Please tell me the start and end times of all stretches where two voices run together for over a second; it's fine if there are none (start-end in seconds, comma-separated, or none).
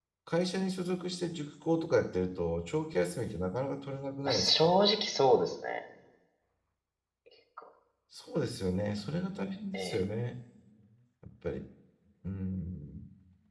none